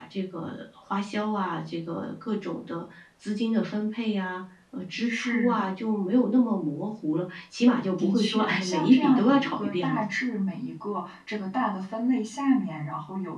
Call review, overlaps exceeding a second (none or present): present